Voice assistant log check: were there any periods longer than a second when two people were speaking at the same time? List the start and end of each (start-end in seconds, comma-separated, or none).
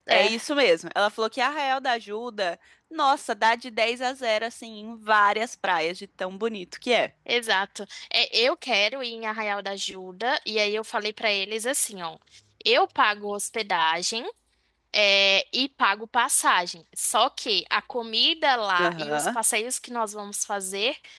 none